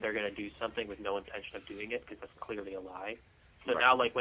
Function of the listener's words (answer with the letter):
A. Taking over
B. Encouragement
B